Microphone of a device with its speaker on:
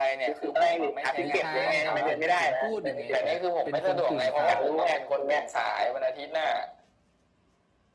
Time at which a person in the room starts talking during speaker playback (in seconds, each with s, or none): 1.2 s